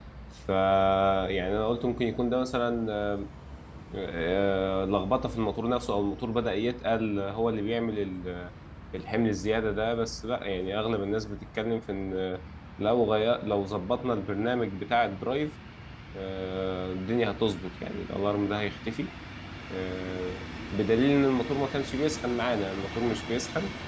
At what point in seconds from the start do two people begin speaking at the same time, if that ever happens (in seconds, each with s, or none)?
none